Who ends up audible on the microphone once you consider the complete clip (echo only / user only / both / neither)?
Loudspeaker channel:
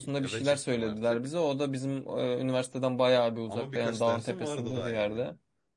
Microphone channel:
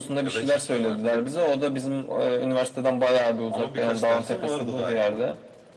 echo only